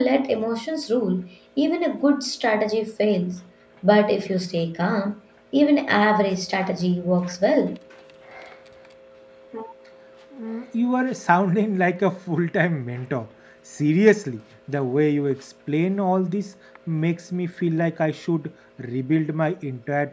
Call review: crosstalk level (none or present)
none